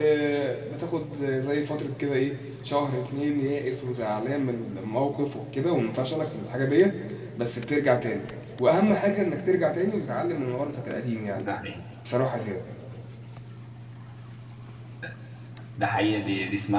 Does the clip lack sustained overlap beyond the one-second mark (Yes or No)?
Yes